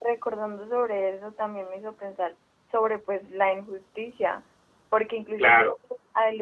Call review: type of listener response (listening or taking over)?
listening